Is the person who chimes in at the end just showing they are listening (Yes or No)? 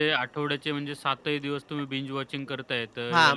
No